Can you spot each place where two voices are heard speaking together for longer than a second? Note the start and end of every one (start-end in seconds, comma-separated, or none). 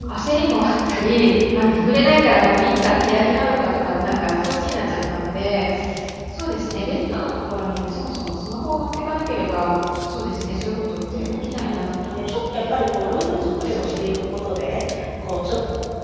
11.1-14.0